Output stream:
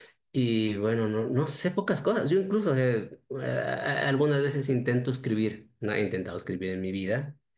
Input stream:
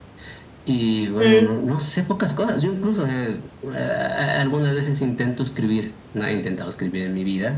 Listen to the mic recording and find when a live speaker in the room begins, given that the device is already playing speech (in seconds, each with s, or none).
1.2 s